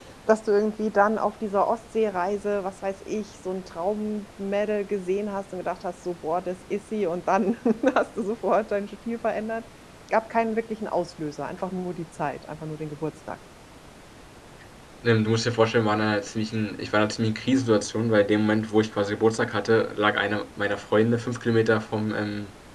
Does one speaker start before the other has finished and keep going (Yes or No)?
No